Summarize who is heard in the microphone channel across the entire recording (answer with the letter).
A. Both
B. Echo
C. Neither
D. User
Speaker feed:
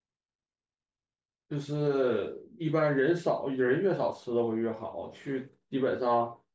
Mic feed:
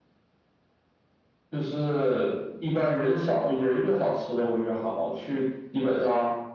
B